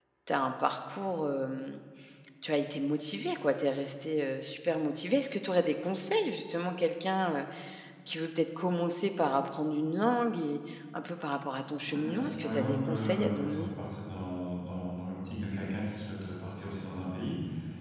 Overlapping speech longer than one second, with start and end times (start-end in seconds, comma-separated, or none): 11.8-13.7